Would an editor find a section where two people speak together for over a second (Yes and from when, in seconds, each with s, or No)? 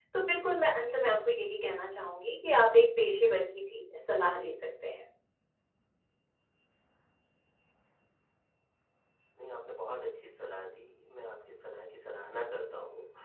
No